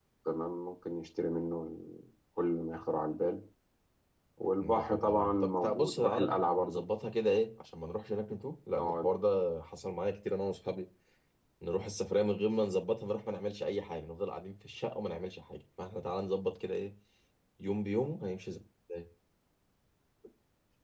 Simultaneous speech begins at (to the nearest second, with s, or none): 5 s